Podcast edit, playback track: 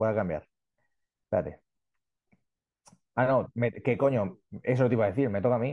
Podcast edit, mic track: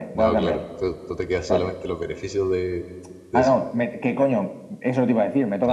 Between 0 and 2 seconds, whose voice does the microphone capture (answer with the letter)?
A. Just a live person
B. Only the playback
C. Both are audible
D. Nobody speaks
C